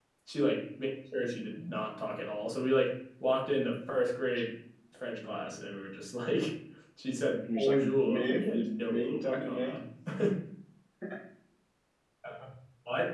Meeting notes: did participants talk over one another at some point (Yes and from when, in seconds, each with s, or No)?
Yes, from 7.6 s